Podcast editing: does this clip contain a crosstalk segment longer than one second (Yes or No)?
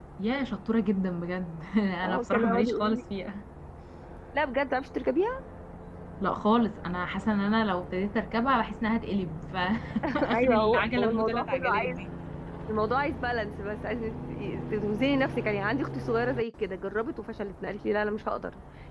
Yes